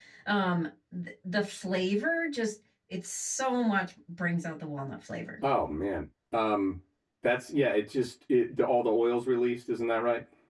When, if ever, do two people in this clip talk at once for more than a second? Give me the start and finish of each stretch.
none

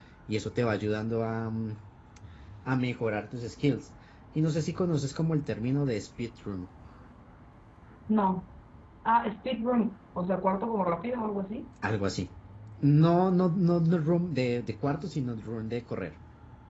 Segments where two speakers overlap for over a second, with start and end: none

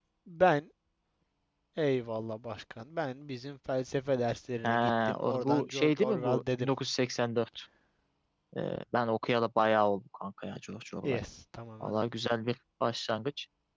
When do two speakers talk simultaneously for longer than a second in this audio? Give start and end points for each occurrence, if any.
4.6-6.7

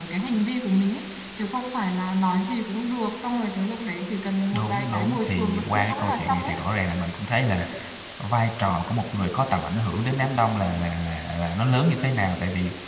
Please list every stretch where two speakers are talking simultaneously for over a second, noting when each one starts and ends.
4.5-6.5

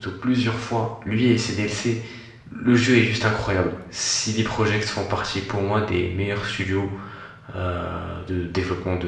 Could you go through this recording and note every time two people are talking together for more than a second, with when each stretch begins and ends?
none

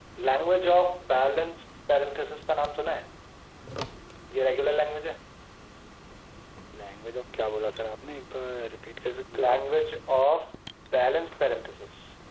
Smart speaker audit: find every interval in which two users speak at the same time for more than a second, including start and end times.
none

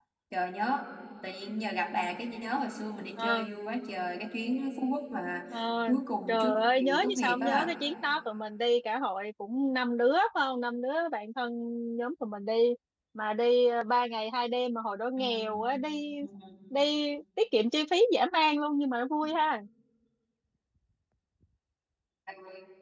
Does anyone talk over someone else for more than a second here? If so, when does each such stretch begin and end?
6.3-7.7

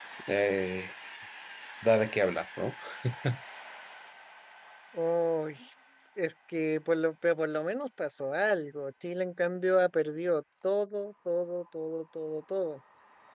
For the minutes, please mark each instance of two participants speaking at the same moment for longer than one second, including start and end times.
none

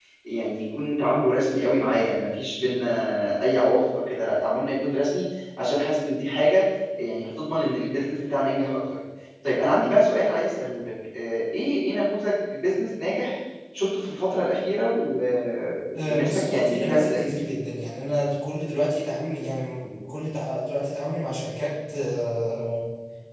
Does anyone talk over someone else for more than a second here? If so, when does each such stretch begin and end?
15.9-17.3

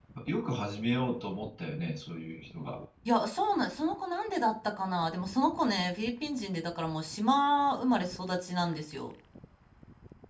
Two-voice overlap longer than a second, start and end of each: none

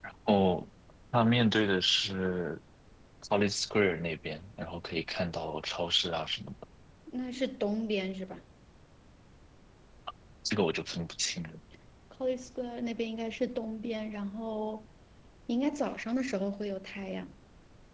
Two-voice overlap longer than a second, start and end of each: none

